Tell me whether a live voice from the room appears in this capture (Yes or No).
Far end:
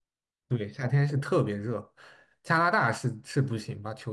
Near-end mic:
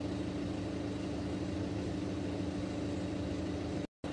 No